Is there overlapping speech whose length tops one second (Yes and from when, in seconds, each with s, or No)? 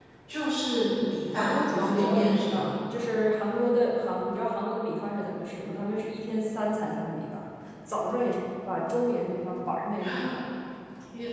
Yes, from 1.4 s